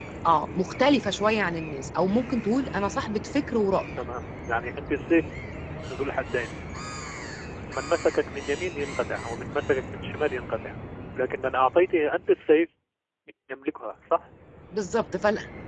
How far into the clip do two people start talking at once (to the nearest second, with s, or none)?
none